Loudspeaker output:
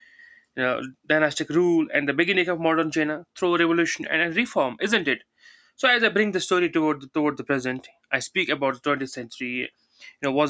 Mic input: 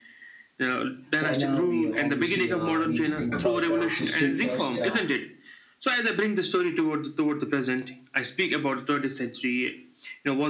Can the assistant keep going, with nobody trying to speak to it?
No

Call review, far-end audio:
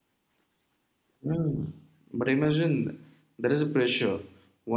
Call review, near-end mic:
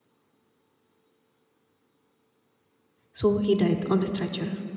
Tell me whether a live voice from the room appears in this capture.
Yes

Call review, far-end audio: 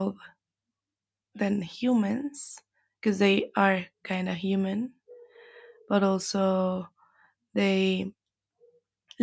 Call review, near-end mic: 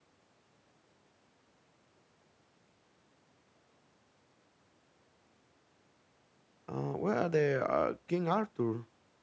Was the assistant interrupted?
Yes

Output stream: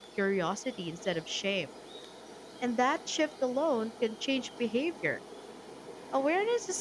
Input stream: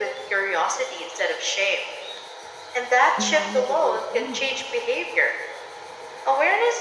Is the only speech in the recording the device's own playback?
No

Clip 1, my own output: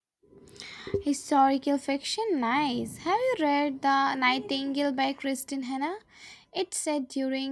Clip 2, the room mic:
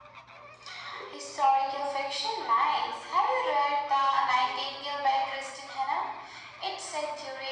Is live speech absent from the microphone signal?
Yes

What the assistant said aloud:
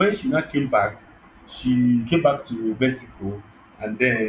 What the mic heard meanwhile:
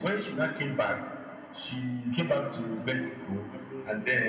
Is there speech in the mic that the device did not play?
Yes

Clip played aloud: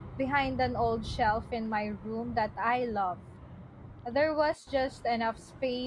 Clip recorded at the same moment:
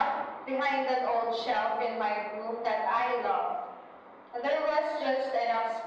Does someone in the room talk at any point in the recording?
No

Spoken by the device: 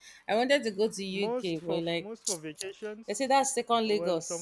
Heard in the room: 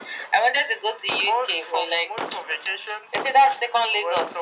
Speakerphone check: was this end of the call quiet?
Yes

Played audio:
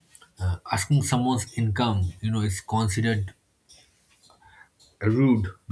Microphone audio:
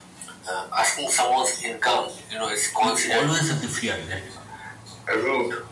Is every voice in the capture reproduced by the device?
No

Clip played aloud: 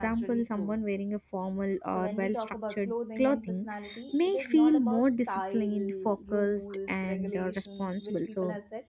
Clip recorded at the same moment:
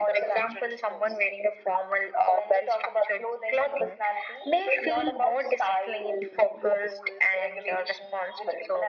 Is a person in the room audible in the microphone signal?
No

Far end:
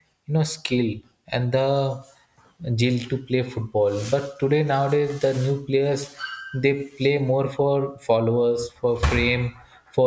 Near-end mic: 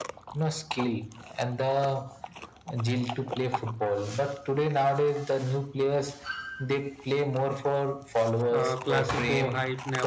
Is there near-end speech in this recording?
Yes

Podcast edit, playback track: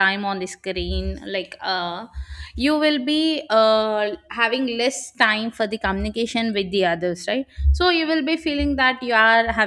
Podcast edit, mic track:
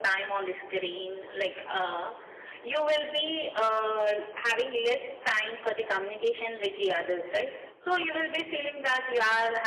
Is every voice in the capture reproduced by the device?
Yes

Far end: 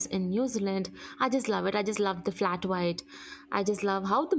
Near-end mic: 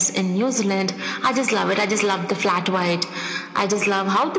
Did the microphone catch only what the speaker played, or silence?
Yes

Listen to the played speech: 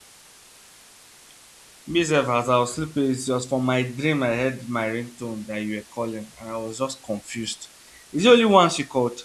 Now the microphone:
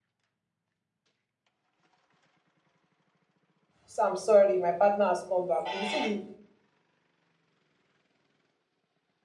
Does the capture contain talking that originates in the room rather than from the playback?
Yes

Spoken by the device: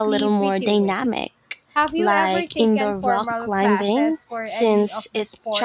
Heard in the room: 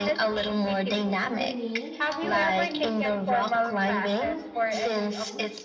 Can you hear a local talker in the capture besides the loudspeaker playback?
Yes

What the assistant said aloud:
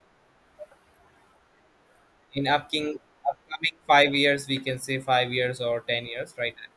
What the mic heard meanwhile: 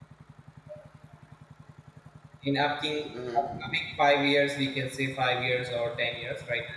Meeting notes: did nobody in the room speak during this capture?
No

